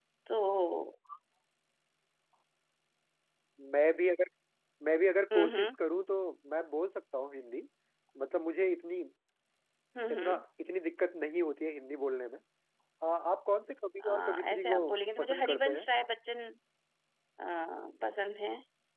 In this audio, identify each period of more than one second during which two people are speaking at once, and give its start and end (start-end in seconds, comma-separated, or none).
14.0-15.8